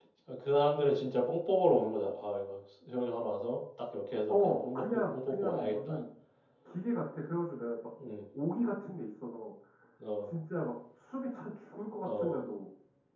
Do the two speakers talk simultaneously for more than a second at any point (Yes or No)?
Yes